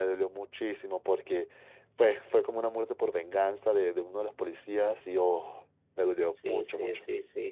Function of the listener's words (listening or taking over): taking over